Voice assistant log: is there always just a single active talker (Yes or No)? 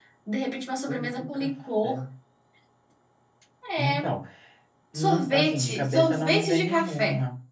No